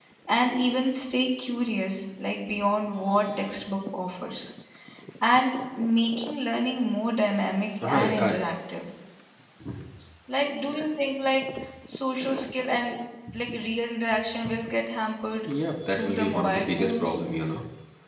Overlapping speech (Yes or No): Yes